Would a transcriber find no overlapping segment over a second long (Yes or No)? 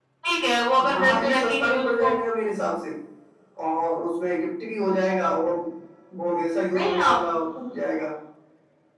No